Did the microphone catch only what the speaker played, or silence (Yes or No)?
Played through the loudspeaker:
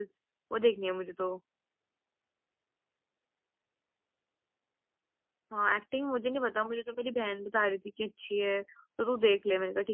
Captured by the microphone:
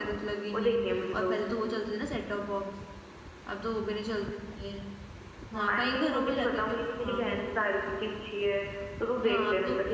No